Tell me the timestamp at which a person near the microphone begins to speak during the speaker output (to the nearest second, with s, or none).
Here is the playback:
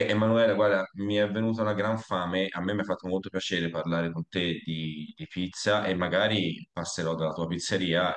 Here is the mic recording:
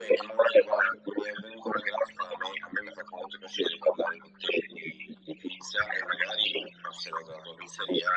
none